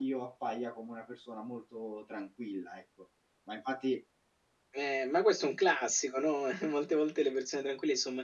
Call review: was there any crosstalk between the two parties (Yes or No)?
No